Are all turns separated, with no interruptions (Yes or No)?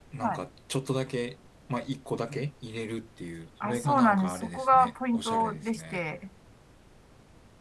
No